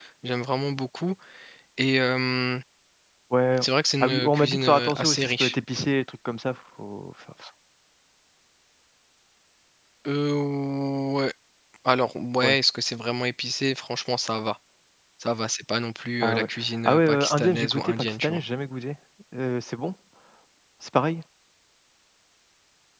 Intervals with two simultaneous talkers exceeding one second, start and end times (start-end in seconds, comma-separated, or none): 4.0-5.5, 16.9-18.4